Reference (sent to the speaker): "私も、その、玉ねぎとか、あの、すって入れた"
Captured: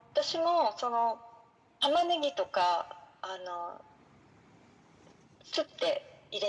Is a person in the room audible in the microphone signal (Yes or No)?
No